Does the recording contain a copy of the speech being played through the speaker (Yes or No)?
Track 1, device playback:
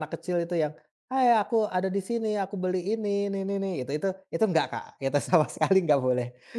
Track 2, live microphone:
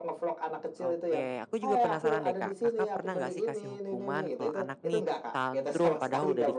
Yes